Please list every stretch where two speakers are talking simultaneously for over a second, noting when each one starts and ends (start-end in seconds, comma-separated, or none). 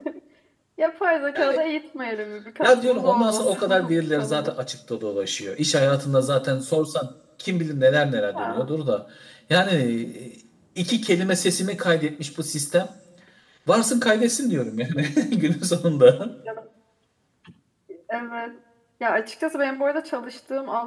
2.6-4.5